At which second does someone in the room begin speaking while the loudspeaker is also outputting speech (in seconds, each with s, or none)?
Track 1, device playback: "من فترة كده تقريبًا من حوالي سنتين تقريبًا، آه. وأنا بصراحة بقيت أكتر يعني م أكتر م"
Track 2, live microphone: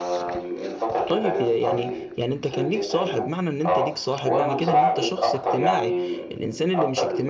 1.1 s